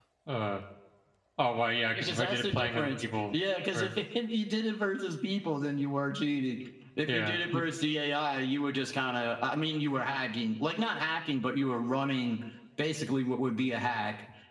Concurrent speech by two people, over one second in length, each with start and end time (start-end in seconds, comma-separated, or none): 1.9-3.3